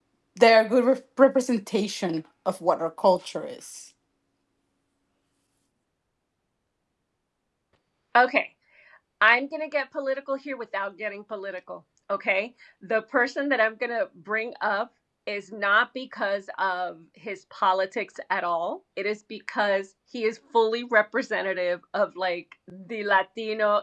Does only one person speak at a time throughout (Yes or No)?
Yes